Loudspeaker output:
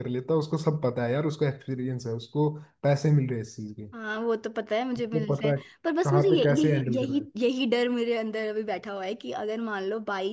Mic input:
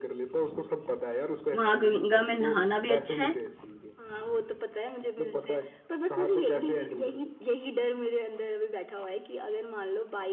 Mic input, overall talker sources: both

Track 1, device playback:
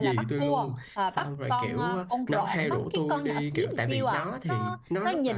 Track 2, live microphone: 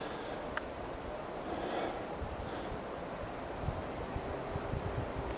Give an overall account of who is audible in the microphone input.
neither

